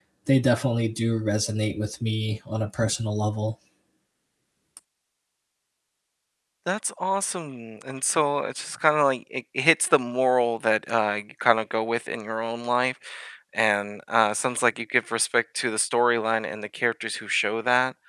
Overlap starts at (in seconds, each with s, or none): none